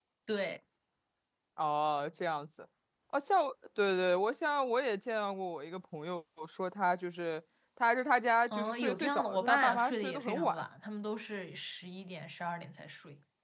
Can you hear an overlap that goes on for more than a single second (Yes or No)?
Yes